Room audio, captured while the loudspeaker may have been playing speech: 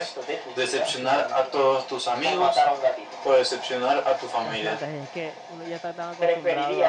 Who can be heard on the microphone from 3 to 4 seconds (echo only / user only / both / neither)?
echo only